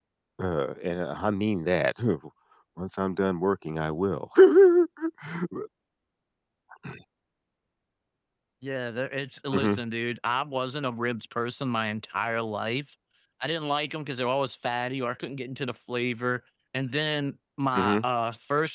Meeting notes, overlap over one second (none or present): none